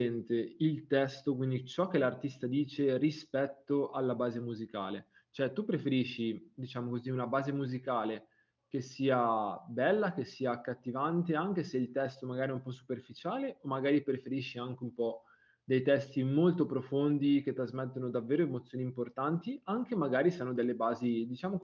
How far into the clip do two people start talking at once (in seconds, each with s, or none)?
none